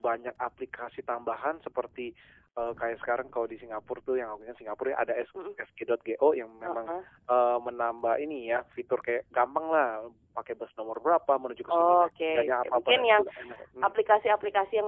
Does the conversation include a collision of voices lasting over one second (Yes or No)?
Yes